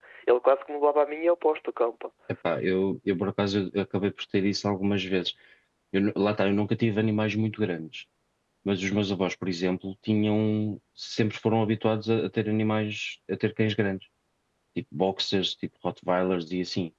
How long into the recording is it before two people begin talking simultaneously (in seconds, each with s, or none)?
none